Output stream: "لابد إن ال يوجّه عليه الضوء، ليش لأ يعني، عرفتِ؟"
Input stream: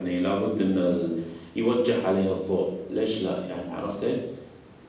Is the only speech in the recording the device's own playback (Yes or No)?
Yes